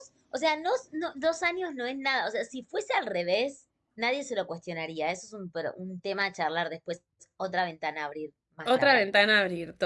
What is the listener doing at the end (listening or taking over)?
taking over